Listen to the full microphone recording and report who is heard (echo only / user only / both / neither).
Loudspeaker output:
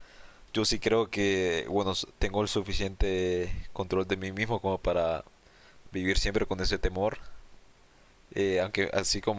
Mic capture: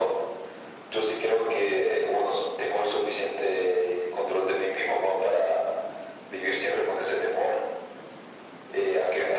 echo only